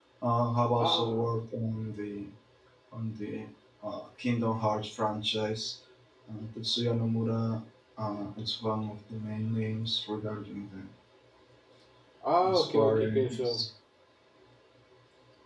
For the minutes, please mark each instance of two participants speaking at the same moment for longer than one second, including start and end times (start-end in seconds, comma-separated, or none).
12.4-13.6